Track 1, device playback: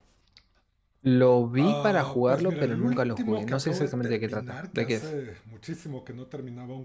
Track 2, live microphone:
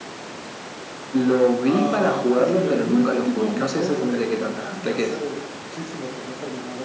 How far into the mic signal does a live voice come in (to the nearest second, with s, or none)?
none